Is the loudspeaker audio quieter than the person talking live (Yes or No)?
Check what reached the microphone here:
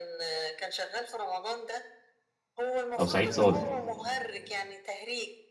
Yes